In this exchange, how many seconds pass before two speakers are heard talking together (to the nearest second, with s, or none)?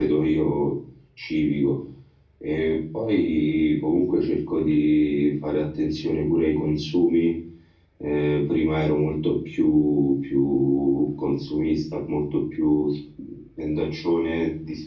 none